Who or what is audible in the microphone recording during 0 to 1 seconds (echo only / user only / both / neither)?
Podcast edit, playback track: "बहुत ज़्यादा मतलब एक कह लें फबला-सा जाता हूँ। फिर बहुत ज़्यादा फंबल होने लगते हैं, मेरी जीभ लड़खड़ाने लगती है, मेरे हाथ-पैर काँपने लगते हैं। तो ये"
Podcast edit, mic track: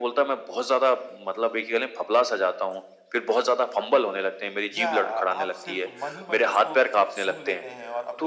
echo only